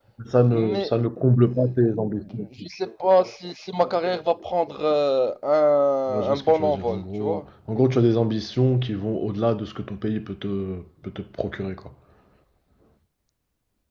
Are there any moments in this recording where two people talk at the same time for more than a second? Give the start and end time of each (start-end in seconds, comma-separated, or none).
6.1-7.4